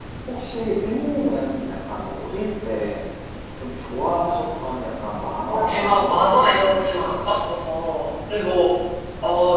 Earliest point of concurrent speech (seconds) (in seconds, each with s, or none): 5.4 s